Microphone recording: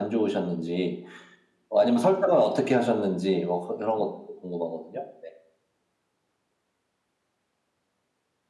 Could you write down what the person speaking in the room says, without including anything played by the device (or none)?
none